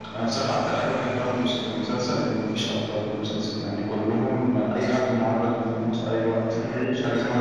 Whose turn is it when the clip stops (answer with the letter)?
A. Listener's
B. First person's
A